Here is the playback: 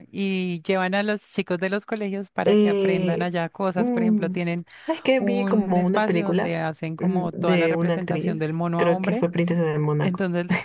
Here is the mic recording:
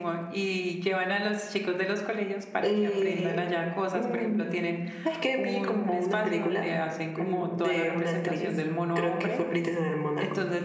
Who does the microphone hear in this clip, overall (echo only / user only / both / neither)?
echo only